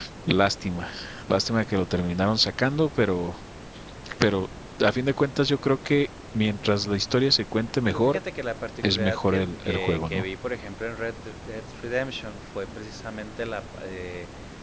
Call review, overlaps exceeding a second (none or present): present